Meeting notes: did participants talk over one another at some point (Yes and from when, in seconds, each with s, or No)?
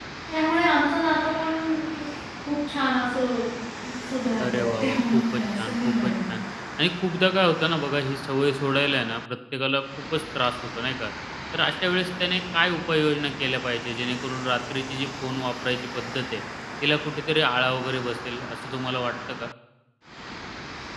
Yes, from 4.4 s